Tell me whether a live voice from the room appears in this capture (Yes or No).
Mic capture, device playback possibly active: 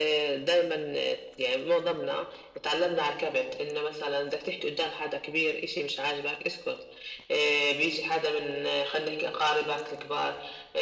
No